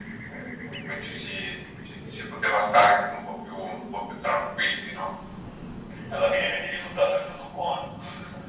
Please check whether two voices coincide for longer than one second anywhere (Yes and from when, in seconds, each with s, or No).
No